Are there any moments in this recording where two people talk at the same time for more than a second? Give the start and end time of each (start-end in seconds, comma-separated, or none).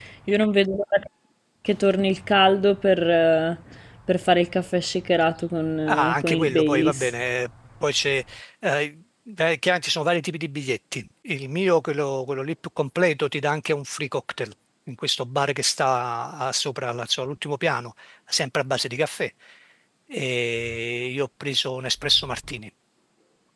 5.9-7.1